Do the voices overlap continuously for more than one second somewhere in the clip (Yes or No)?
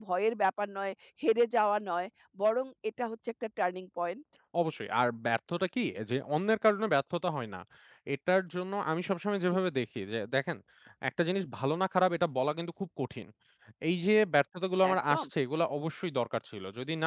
No